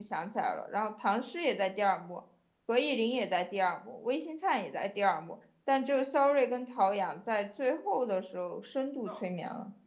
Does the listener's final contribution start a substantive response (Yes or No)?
Yes